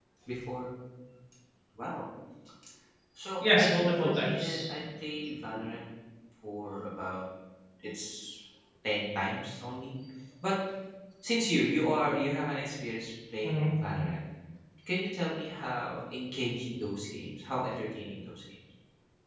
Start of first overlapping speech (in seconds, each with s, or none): 3.4 s